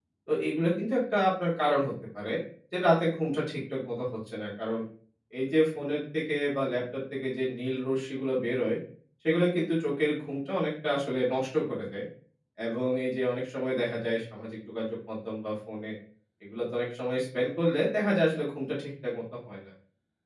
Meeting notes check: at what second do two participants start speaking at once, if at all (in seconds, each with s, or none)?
none